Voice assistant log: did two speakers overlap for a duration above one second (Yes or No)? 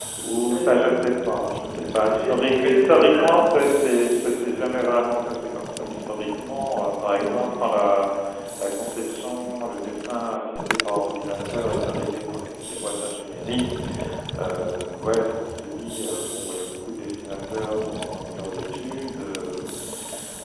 Yes